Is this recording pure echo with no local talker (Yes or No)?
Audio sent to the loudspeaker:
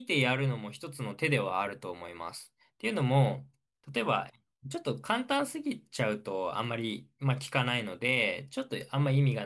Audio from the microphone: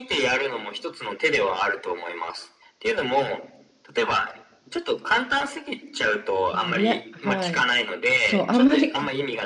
No